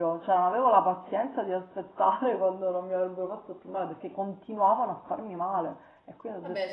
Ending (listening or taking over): taking over